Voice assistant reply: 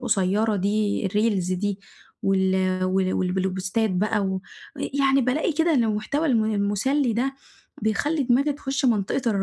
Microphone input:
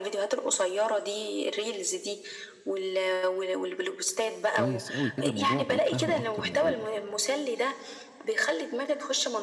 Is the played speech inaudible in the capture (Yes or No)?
No